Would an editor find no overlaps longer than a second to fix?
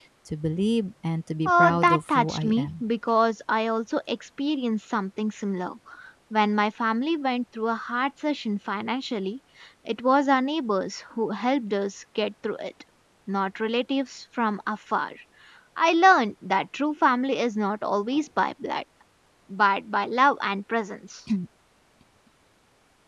No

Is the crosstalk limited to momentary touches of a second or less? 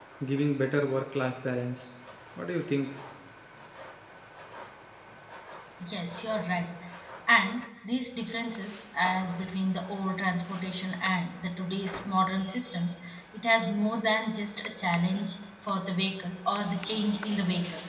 Yes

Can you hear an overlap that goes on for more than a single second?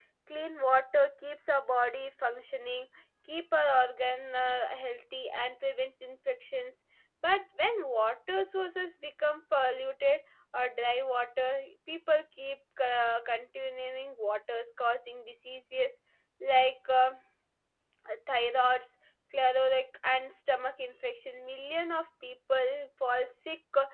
No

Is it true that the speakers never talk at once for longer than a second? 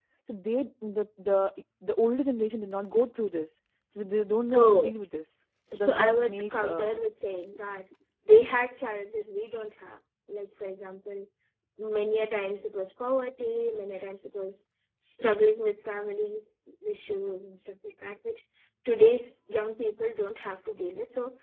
No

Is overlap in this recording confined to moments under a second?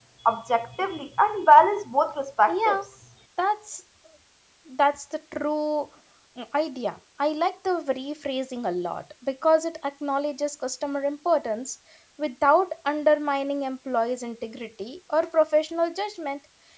Yes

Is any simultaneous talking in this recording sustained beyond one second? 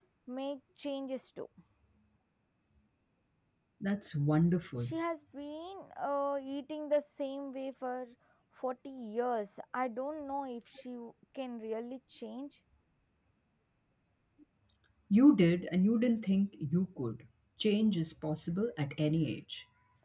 No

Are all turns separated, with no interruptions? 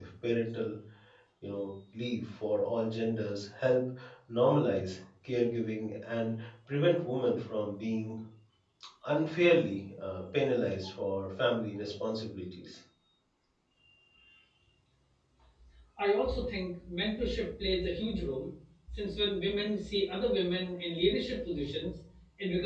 Yes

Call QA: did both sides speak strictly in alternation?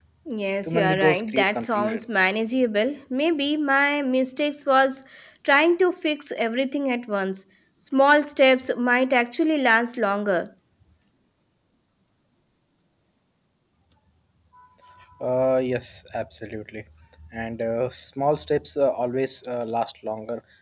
No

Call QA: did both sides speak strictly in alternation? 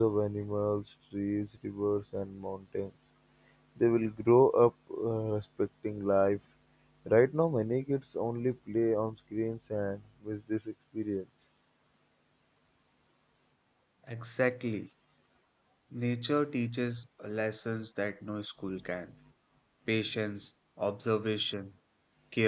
Yes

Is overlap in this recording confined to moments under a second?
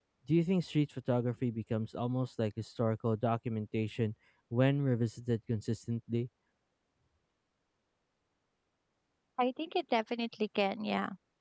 Yes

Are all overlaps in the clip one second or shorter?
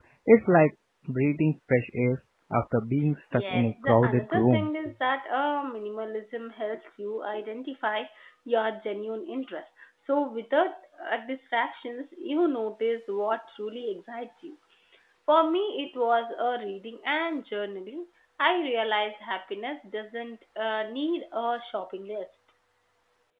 No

